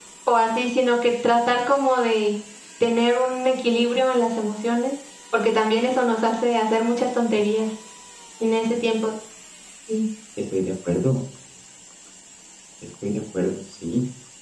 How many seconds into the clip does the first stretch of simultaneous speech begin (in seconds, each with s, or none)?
none